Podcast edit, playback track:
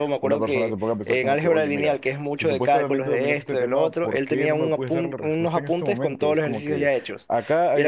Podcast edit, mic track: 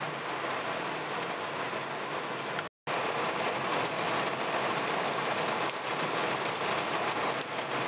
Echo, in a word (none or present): none